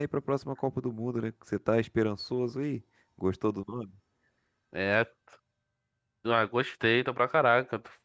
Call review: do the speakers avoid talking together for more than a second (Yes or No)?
Yes